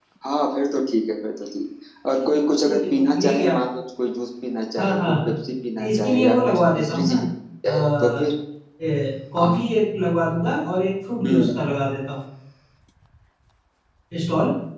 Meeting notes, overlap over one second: present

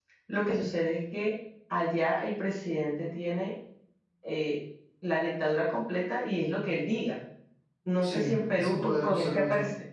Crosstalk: present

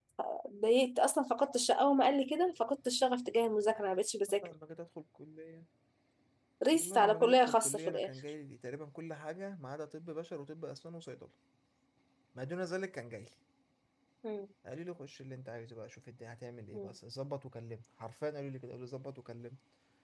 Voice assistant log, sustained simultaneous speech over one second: present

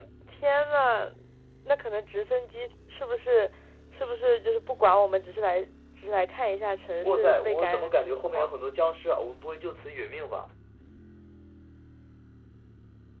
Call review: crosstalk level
present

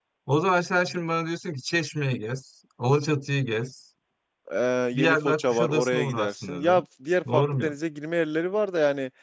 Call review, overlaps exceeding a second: present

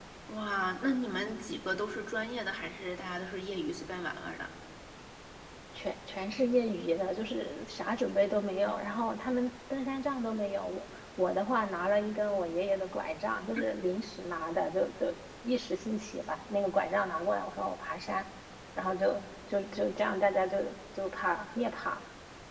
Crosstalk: none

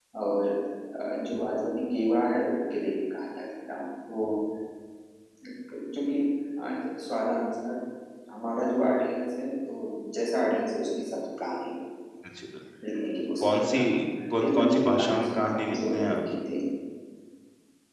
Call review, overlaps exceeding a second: present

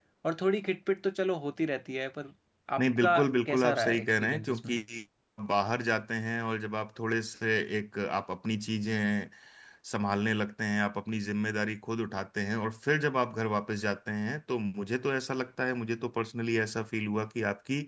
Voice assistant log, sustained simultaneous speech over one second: present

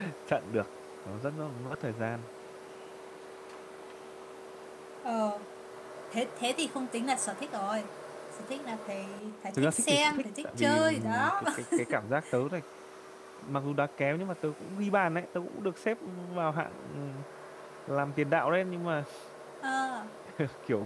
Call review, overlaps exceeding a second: present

